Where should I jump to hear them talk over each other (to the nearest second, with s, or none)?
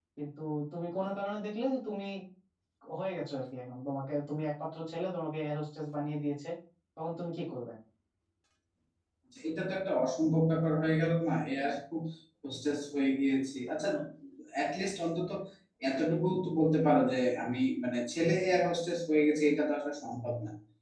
none